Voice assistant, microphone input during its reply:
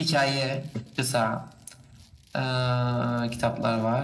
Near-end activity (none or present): none